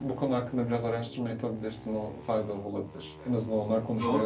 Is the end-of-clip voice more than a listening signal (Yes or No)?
Yes